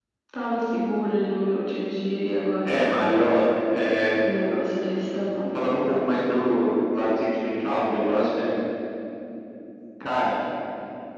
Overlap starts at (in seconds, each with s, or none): none